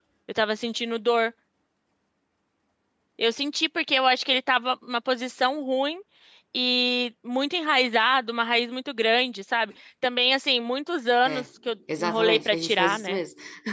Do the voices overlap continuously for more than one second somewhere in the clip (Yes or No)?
Yes